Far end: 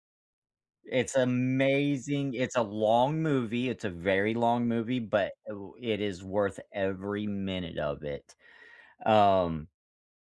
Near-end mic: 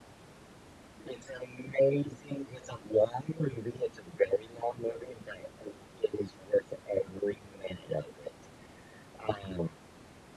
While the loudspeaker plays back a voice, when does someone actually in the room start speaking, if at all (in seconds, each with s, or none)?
none